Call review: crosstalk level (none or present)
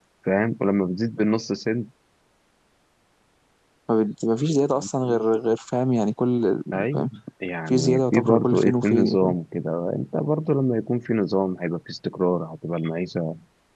present